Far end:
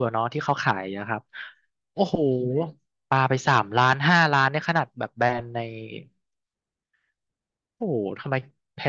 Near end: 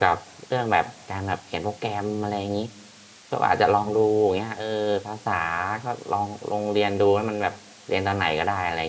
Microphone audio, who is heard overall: user only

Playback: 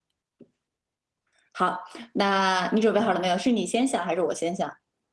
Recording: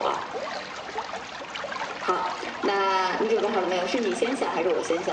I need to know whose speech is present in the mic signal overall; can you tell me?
echo only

